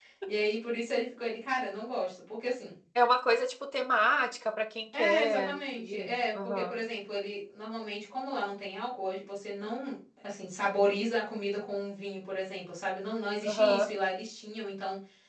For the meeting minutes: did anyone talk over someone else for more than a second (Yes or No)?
Yes